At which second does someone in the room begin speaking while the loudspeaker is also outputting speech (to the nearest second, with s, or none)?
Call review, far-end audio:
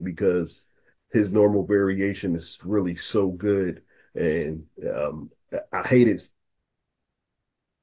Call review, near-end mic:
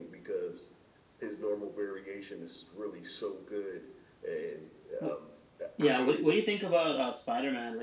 5 s